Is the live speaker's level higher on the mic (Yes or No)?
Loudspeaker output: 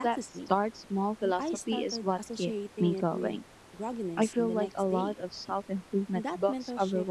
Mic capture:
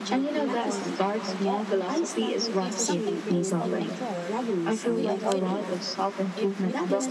No